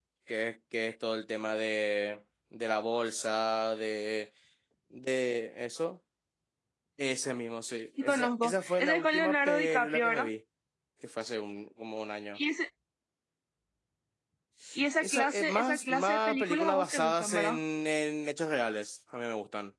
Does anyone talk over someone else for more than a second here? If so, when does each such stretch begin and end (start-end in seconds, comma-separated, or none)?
8.0-10.3, 15.0-17.6